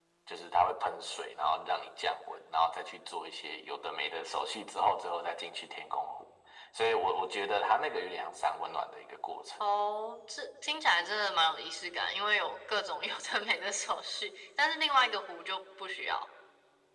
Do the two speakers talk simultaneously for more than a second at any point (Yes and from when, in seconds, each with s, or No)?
No